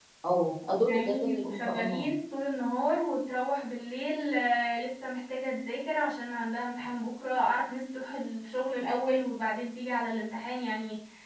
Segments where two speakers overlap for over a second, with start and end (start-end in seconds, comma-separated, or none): 0.8-2.1